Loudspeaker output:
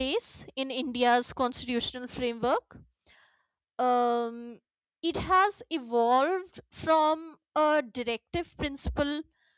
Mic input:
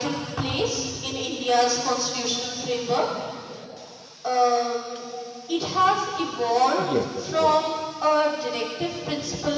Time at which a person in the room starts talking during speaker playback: 7 s

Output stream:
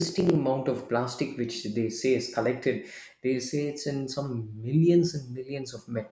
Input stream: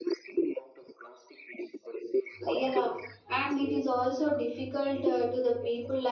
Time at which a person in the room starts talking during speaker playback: 2 s

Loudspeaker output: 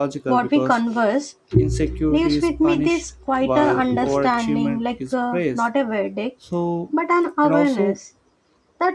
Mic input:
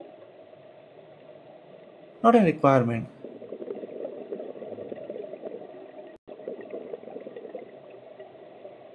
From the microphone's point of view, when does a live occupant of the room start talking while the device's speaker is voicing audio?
2 s

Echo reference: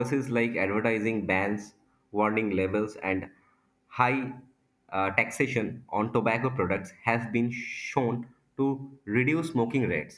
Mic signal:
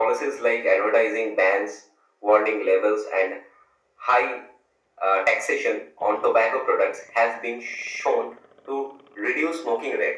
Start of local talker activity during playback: none

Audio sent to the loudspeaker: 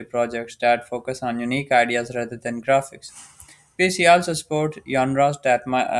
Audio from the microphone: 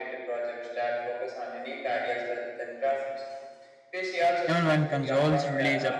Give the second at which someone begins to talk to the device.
4 s

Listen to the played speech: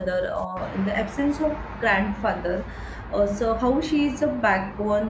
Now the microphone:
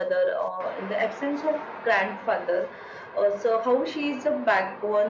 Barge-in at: none

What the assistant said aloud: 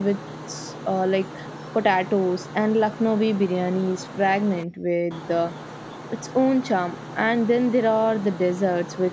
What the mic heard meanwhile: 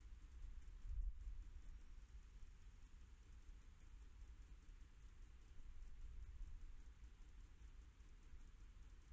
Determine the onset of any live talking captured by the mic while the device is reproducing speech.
none

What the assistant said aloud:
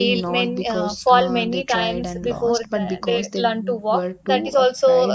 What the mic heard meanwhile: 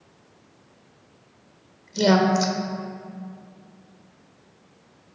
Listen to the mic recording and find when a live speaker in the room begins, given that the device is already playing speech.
2 s

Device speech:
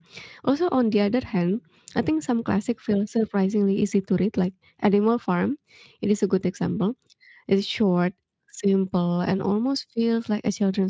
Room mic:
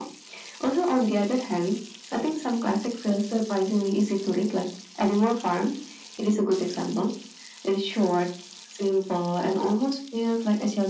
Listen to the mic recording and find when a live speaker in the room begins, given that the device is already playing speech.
none

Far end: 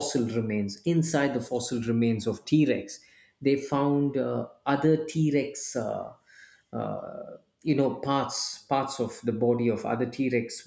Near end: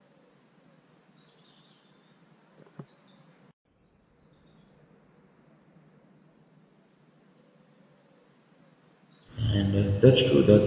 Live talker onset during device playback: 9 s

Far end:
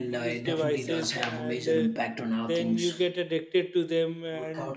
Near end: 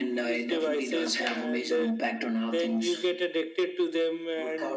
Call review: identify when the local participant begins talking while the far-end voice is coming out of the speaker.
none

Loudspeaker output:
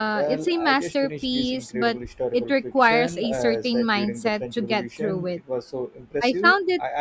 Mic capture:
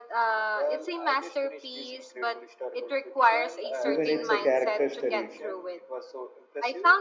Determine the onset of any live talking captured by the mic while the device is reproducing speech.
4 s

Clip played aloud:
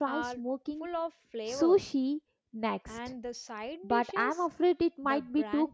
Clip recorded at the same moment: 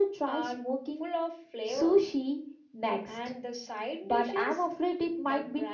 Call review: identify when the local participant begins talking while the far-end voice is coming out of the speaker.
none

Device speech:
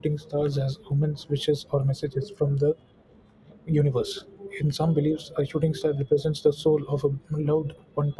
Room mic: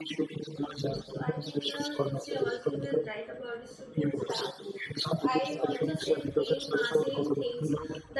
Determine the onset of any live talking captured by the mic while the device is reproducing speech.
1 s

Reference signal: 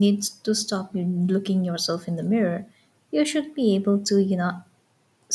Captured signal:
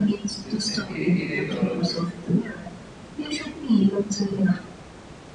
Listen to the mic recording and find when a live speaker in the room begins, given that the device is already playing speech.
0 s

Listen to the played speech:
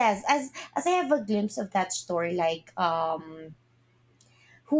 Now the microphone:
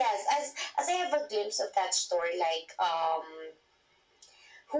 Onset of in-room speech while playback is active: none

